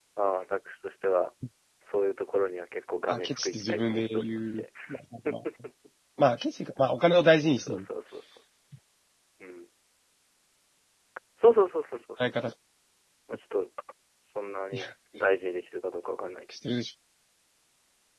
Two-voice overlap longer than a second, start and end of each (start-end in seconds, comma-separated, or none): 3.1-4.6